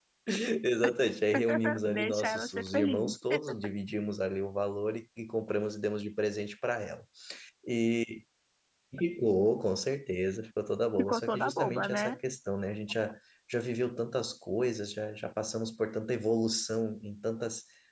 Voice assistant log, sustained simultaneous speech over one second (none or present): present